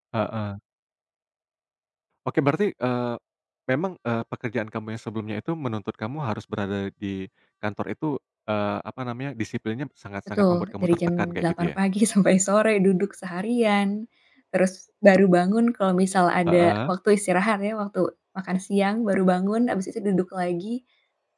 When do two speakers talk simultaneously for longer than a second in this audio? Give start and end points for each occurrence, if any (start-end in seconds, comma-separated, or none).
10.4-11.7